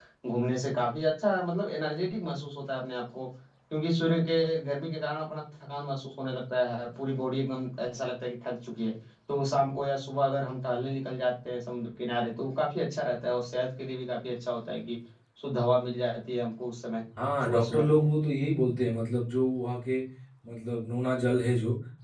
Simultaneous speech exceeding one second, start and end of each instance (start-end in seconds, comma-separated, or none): none